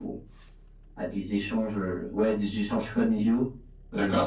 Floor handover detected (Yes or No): No